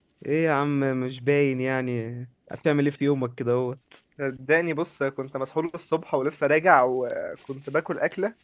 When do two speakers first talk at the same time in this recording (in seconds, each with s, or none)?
none